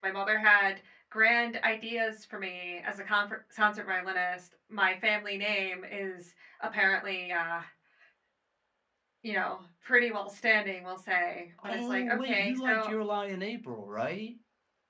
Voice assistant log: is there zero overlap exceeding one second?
No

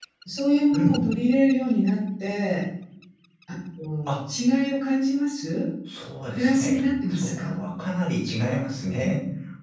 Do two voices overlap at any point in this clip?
Yes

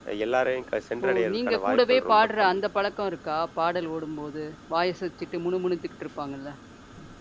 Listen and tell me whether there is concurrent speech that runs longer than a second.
Yes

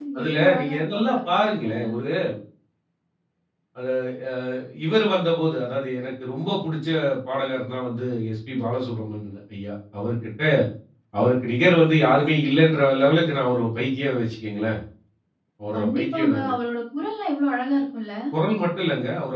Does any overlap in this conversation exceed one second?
Yes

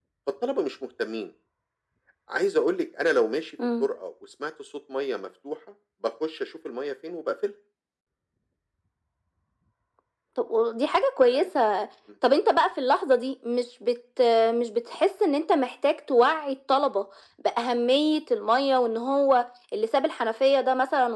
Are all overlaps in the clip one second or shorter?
Yes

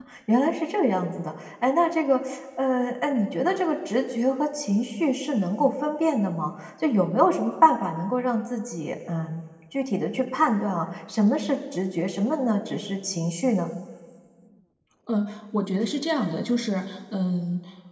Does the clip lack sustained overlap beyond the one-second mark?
Yes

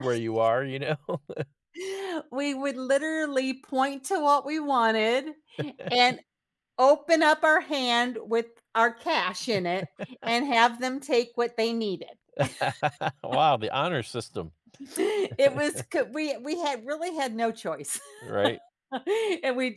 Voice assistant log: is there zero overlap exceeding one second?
Yes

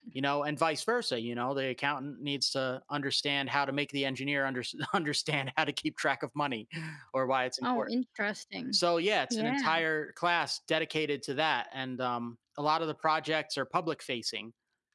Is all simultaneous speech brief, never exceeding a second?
Yes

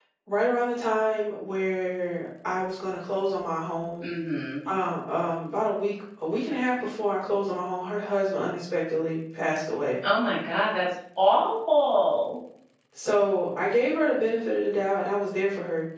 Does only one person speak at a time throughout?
Yes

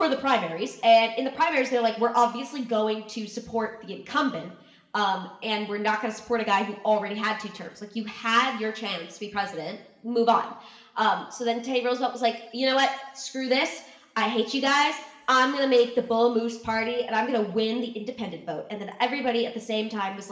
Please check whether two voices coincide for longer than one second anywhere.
No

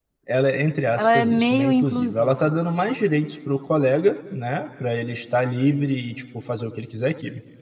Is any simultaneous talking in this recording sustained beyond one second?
Yes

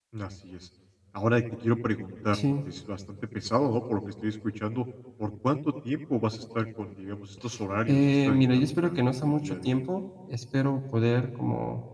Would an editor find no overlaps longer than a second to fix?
No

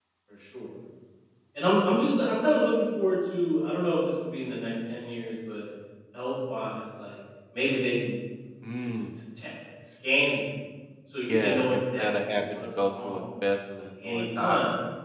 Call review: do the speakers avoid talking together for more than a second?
No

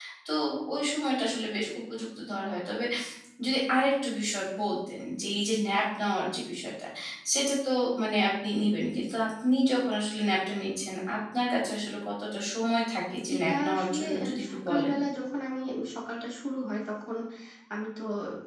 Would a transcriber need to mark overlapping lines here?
Yes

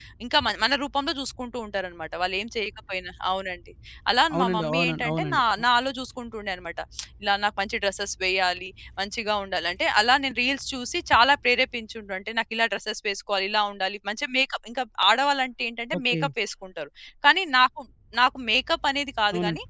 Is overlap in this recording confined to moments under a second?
No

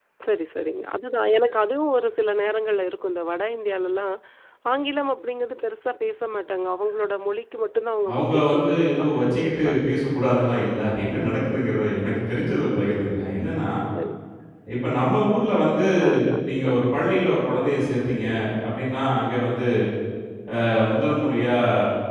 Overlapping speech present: Yes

